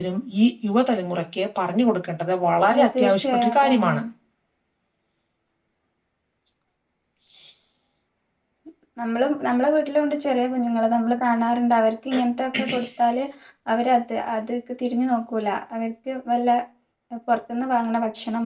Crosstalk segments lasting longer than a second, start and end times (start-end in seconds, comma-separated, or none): 2.7-4.0